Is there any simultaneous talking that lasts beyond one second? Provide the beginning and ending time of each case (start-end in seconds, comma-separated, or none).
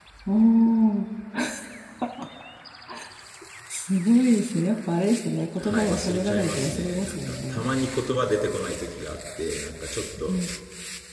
5.6-7.7